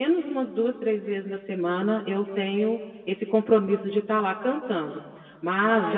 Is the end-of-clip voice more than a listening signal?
No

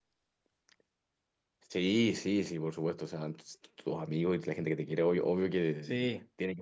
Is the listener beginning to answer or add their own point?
No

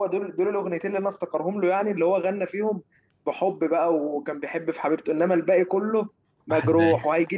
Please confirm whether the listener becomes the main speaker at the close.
No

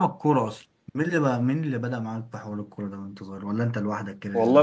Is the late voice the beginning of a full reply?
Yes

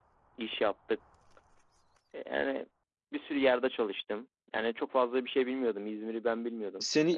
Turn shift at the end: Yes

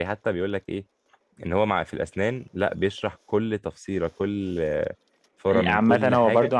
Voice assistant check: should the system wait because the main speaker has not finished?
No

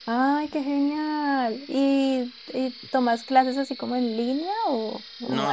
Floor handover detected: Yes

